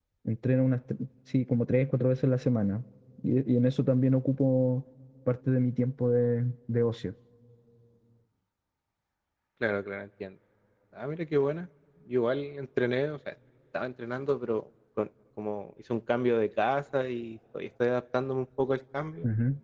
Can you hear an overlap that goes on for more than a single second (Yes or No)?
No